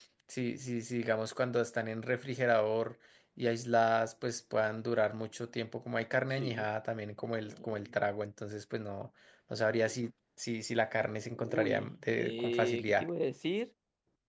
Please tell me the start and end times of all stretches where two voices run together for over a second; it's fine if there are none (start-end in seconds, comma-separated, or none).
11.2-13.1